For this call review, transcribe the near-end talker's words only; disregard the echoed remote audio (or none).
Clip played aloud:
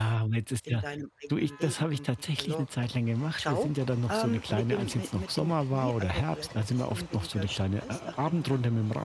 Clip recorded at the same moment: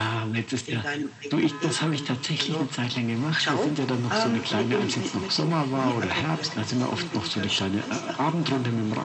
none